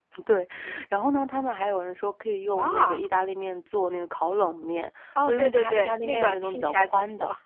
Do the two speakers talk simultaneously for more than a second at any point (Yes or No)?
Yes